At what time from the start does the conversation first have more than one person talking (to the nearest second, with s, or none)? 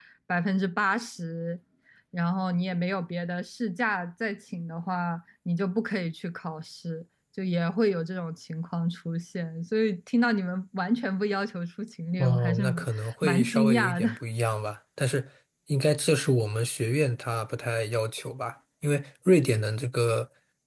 12 s